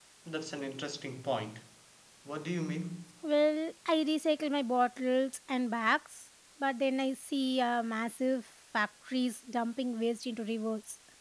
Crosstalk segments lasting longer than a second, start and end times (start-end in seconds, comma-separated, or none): none